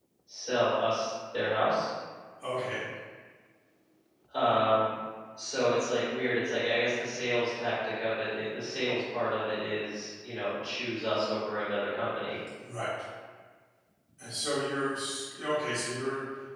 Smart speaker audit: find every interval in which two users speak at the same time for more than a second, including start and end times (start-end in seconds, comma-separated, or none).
none